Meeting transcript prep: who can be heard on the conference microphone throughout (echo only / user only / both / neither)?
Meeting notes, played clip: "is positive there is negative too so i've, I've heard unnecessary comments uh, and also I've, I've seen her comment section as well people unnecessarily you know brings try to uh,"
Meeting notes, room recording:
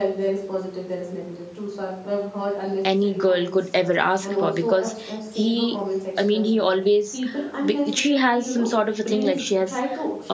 both